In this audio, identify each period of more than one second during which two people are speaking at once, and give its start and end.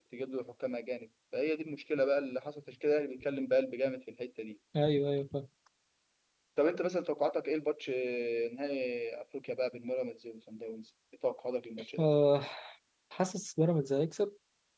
none

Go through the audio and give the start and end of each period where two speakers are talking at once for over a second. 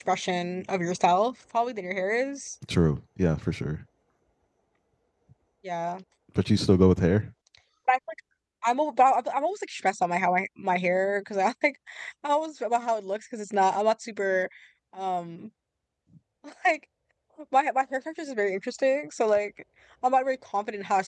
none

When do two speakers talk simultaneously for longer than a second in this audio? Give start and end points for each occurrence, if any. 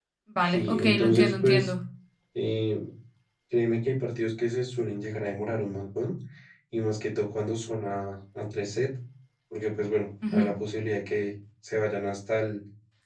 0.5-1.7

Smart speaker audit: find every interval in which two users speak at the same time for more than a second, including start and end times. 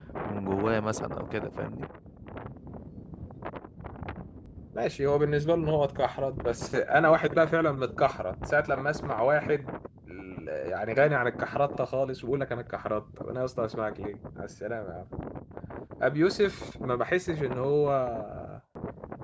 none

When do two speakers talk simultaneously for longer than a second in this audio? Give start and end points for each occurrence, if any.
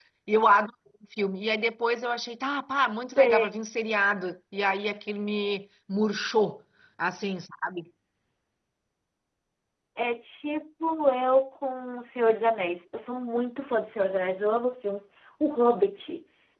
none

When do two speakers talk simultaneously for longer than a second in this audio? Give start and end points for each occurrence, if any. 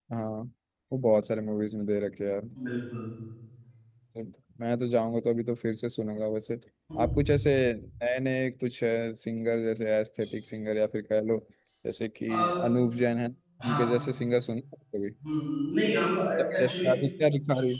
none

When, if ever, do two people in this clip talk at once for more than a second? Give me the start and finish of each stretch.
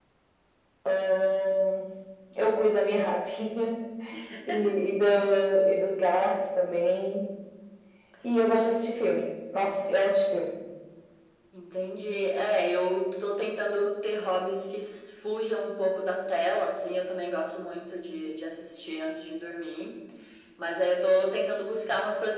none

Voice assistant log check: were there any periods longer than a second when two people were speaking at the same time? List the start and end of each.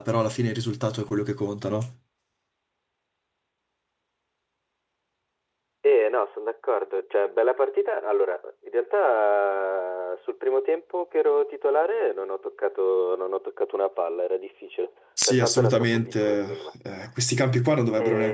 15.3-16.6

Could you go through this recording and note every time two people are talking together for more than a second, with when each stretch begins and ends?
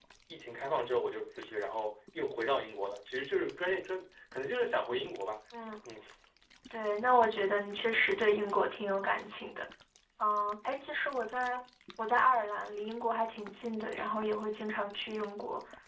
none

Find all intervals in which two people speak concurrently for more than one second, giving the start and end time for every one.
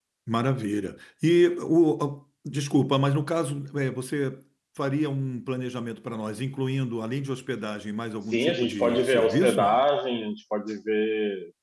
8.3-9.8

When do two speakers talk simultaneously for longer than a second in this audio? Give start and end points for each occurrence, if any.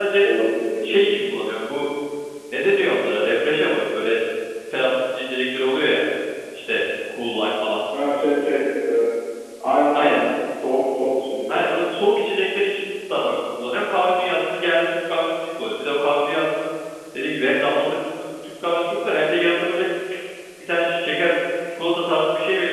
none

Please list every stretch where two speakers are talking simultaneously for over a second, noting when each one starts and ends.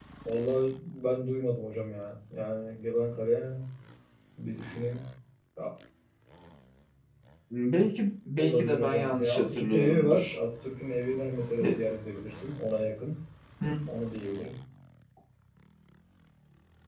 8.4-10.4

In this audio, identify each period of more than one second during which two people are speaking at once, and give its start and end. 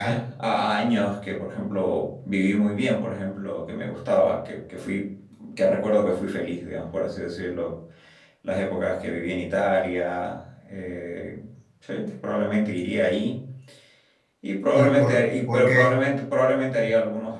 14.7-16.0

